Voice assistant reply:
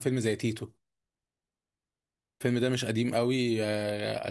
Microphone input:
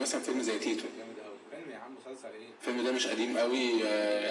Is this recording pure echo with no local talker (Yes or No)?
No